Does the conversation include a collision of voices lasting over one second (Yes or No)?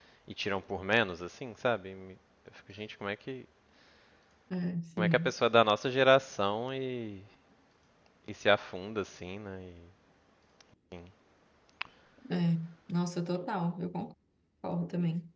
No